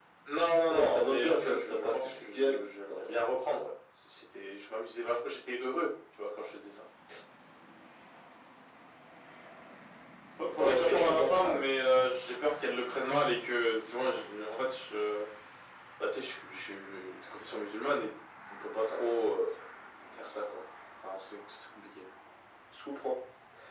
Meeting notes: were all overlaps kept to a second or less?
No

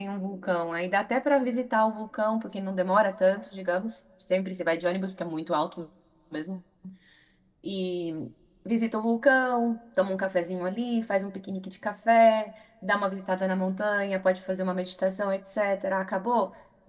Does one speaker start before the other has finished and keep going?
No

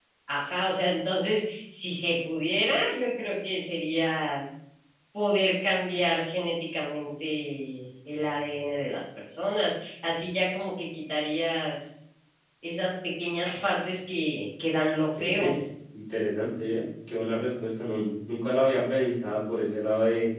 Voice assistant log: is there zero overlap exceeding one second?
Yes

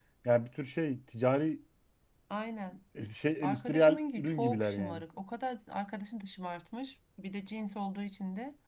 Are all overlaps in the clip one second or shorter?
No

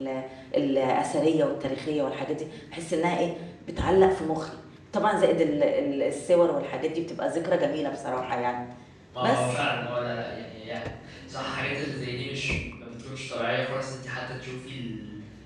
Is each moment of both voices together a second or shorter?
Yes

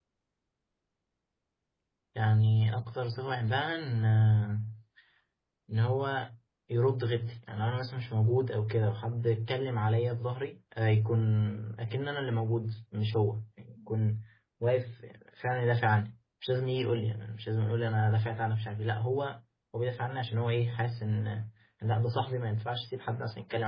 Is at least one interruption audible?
No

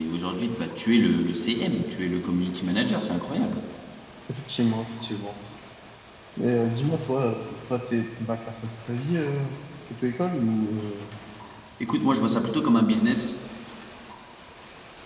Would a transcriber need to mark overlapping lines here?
No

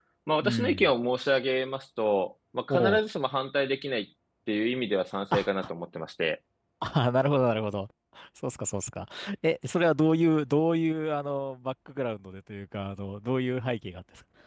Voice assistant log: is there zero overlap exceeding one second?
Yes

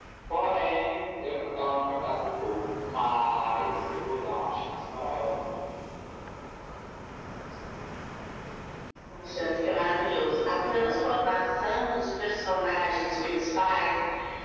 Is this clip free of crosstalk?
Yes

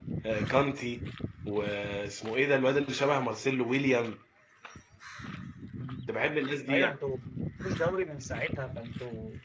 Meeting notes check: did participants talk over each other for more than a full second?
No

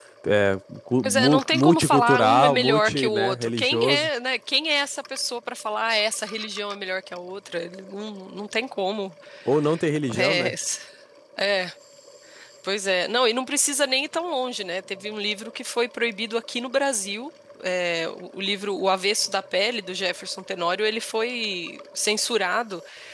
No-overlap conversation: No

